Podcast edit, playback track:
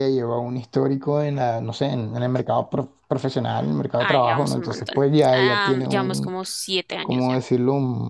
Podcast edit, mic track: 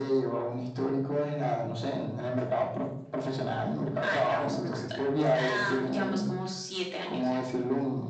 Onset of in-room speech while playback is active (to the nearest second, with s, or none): none